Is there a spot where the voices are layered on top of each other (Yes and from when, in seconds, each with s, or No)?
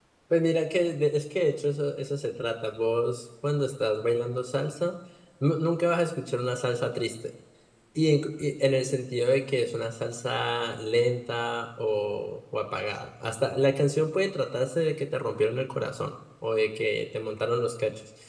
No